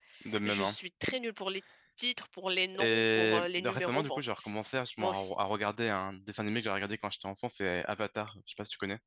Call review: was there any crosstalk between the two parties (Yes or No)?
Yes